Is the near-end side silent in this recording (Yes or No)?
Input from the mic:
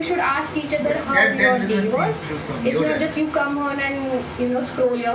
No